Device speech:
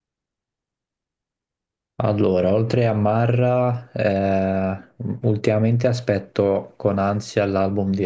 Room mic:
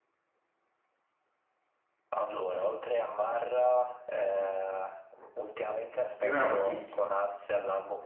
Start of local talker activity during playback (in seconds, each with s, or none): 6.2 s